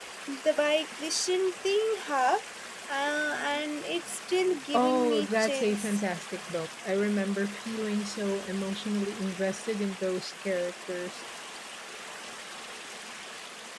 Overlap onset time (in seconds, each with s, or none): 4.7 s